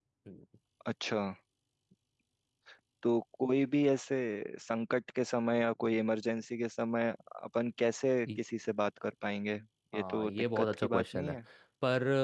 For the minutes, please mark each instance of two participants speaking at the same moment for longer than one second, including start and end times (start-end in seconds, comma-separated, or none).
9.9-11.3